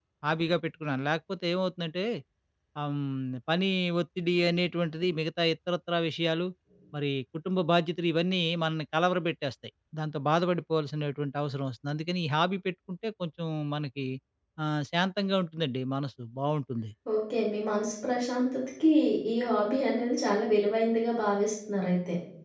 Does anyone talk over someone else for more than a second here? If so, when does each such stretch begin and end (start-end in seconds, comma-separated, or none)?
none